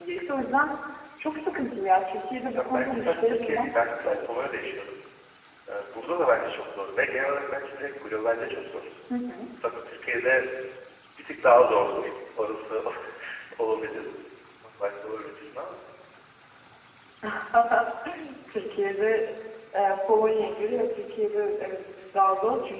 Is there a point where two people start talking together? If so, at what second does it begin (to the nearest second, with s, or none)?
3 s